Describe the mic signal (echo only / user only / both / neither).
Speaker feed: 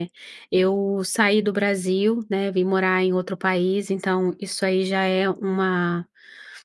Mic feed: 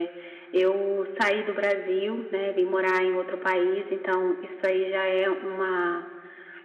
echo only